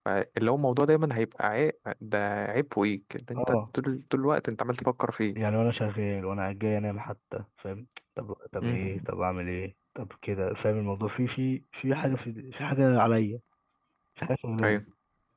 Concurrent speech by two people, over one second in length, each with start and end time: none

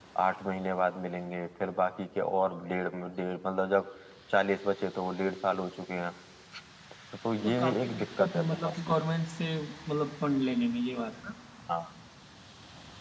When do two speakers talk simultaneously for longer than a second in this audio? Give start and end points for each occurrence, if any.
7.4-8.7

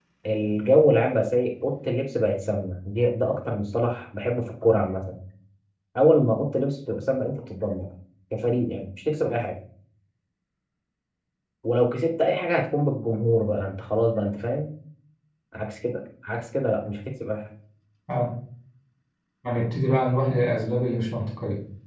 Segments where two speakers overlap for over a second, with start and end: none

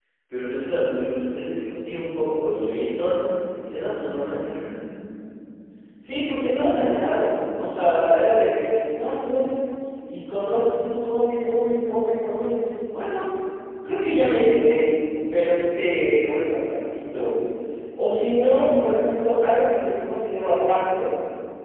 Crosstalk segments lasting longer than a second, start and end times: none

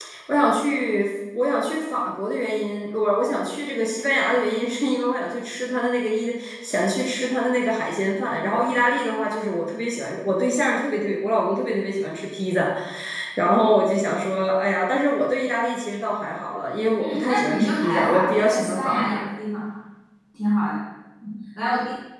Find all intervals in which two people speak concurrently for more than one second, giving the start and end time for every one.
17.0-19.2

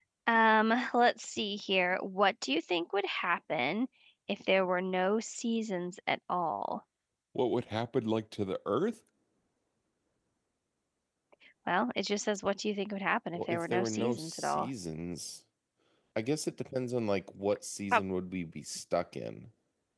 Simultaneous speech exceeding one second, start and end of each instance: 13.3-14.7

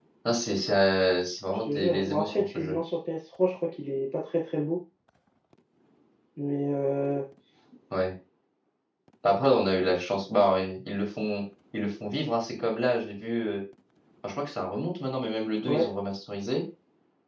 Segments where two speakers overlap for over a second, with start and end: 1.6-2.8

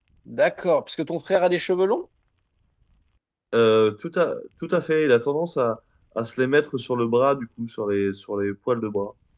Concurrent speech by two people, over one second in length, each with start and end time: none

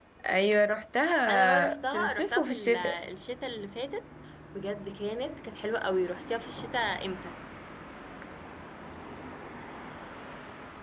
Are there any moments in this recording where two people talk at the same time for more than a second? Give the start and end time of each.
1.3-3.0

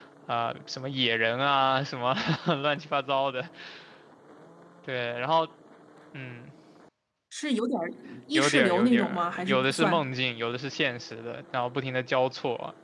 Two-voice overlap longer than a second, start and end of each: 8.3-10.1

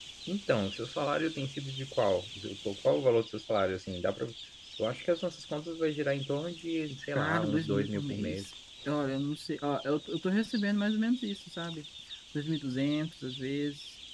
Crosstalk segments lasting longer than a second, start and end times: 7.2-8.5

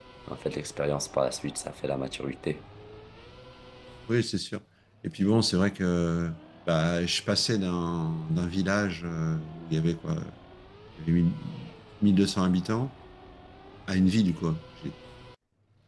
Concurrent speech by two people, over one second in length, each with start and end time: none

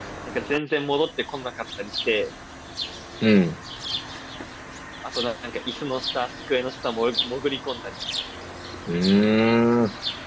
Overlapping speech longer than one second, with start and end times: none

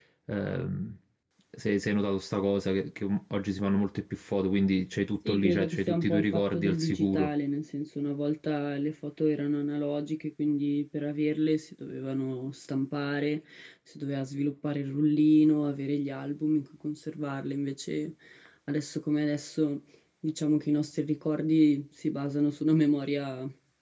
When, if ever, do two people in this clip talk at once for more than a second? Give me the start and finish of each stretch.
5.3-7.3

